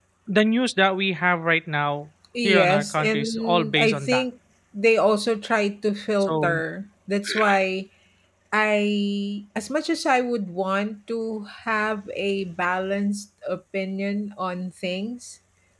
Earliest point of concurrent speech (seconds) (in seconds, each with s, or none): 2.4 s